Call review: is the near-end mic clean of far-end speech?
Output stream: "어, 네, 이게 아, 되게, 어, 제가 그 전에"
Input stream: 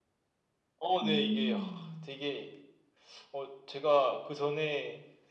No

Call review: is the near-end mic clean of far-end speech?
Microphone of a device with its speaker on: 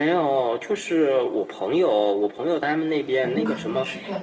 No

